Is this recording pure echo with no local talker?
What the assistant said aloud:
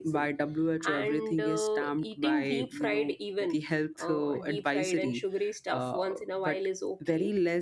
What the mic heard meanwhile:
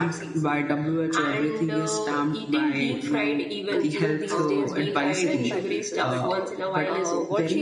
No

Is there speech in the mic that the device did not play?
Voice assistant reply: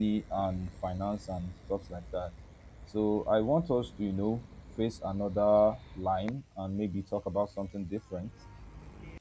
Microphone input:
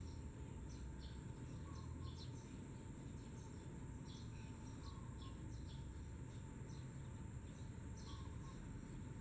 No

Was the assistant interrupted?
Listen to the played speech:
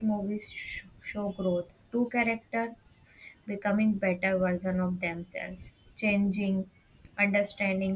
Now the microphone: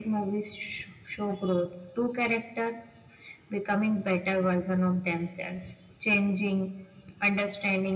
No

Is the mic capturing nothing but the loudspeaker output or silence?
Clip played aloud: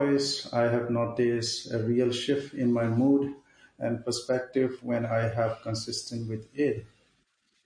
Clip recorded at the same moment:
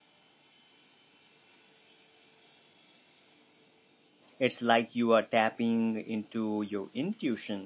No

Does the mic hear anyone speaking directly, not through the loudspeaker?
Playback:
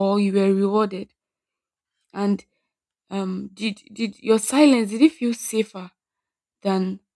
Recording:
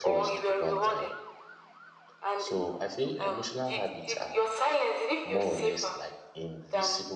Yes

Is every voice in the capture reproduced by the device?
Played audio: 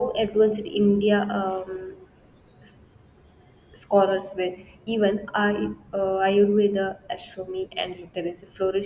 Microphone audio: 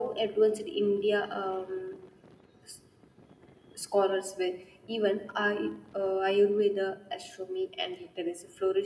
Yes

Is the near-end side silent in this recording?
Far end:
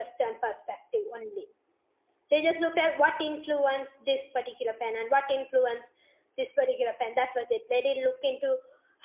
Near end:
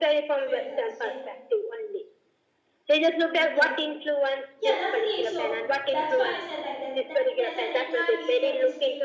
No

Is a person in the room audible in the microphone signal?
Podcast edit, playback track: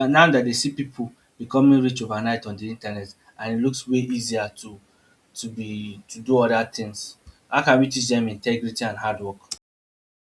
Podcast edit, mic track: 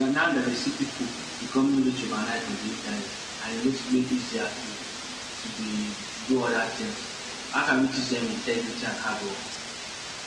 No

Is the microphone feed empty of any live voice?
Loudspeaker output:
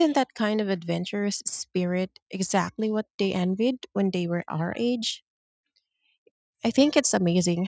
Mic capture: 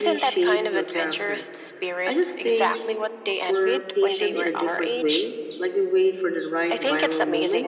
No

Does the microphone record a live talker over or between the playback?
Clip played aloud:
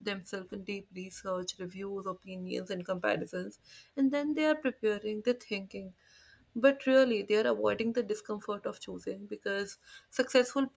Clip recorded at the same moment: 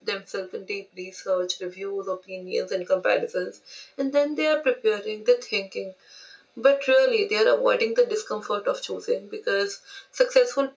No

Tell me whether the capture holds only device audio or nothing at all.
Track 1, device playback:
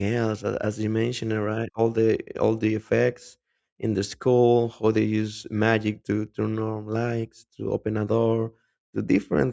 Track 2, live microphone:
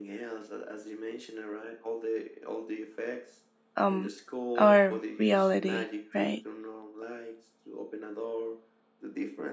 No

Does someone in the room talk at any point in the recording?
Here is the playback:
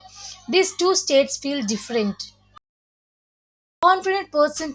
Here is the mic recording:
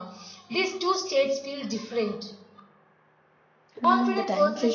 Yes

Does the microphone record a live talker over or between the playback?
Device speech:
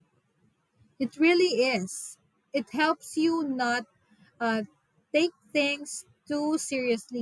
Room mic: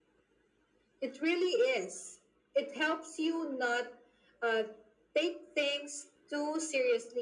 No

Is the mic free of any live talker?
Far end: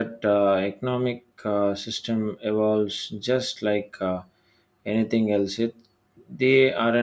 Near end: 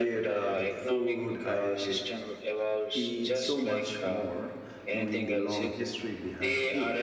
No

